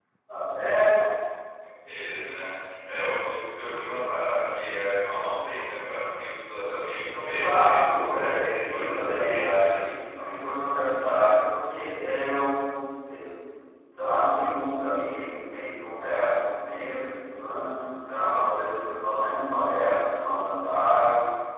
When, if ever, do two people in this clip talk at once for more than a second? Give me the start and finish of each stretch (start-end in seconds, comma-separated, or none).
7.2-9.8